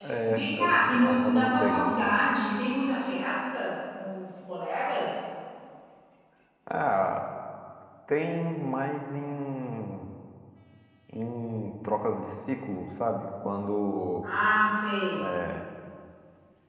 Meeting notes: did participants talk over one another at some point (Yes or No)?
Yes